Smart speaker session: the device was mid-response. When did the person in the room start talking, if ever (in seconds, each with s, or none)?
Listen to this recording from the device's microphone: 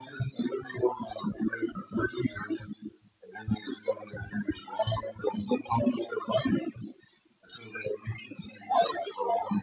none